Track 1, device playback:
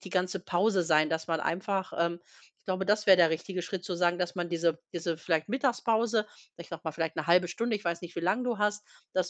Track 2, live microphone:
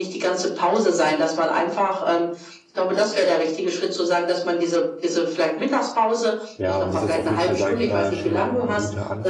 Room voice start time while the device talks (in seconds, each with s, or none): 6.6 s